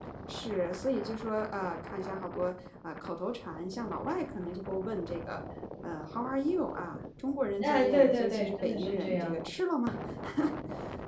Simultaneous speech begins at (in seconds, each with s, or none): 7.6 s